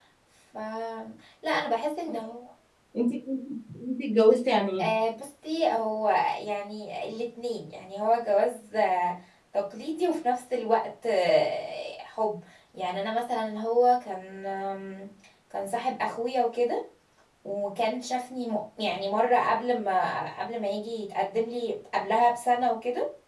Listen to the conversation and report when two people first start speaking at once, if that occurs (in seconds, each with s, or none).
none